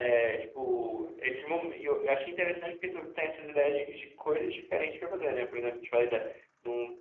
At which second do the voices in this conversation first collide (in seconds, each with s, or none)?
none